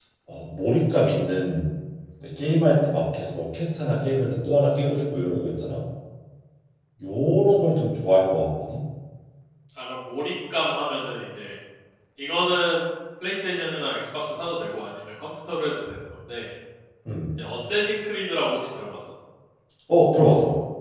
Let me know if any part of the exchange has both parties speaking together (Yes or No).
No